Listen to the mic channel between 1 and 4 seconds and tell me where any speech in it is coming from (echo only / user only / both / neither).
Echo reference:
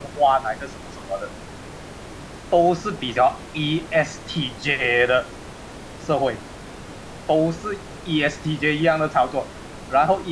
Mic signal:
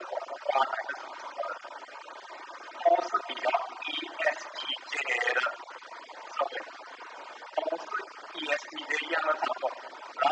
echo only